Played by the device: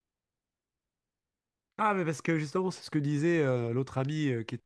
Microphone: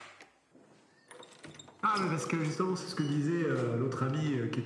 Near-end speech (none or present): none